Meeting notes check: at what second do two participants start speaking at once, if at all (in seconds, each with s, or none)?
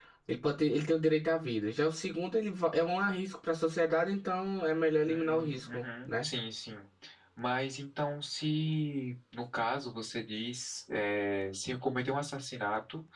5.0 s